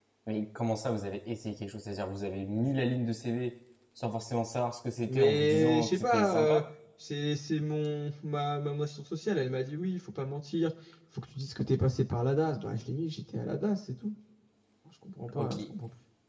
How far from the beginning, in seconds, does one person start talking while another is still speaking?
5 s

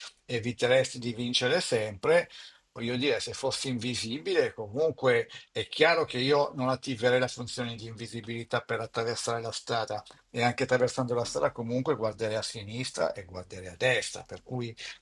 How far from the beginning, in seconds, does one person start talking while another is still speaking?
none

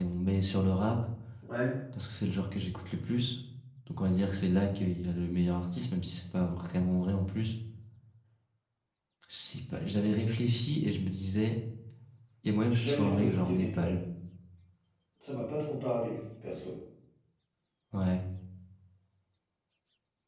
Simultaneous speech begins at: 13 s

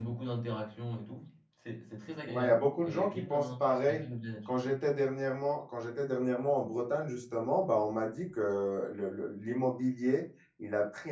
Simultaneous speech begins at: 2 s

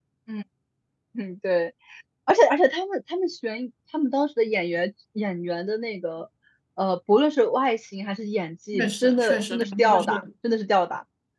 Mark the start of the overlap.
9 s

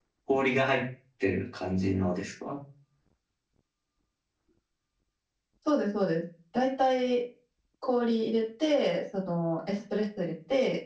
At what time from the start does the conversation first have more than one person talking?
none

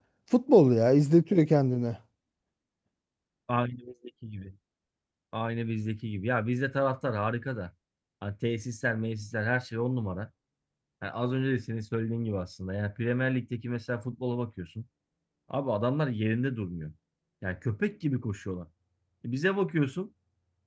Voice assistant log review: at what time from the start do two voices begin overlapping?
none

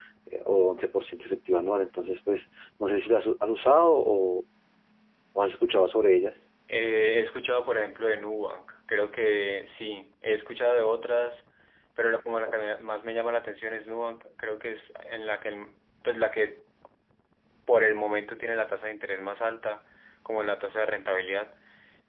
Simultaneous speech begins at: none

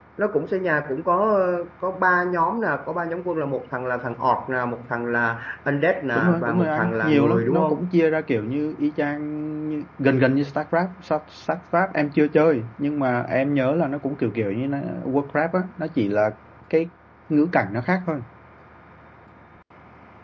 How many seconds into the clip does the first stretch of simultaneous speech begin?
6 s

